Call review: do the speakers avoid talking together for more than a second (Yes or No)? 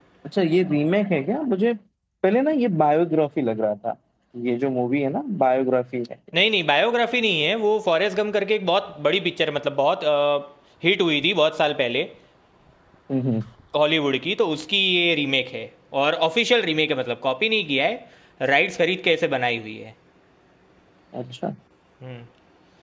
Yes